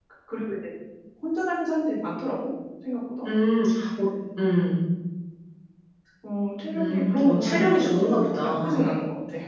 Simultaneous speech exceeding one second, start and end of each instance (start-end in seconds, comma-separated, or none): 6.8-8.9